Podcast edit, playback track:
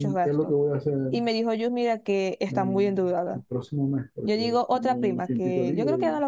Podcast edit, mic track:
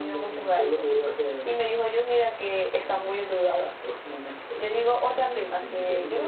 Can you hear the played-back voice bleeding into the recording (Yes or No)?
Yes